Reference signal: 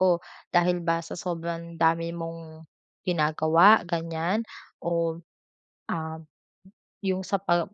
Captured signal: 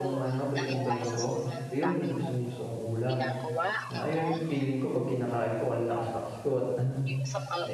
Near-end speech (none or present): present